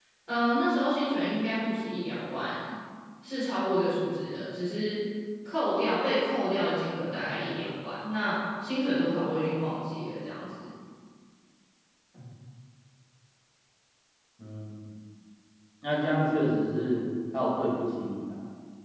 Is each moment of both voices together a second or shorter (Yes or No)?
Yes